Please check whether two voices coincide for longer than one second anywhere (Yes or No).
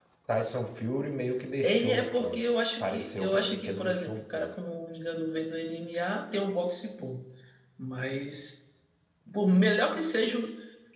Yes